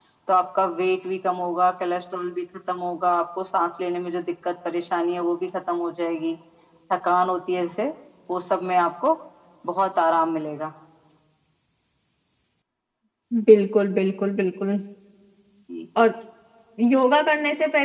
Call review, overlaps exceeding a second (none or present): none